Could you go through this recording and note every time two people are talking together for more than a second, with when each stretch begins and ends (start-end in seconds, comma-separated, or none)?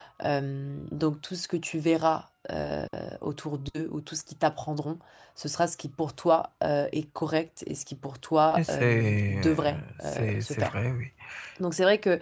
8.6-10.7